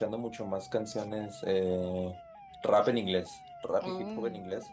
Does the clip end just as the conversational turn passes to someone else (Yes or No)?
No